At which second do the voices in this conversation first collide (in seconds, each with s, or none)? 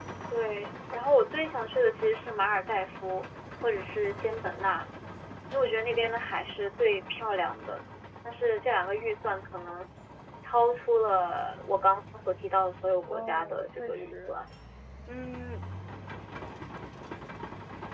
13.1 s